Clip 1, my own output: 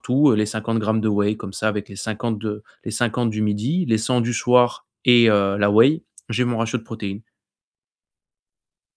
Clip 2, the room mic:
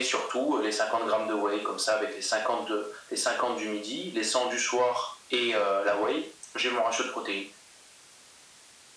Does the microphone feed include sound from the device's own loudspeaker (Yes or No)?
Yes